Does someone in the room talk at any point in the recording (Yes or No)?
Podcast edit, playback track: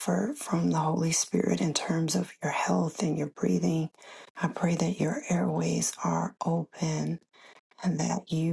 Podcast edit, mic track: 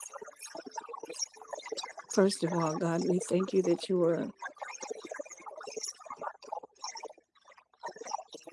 Yes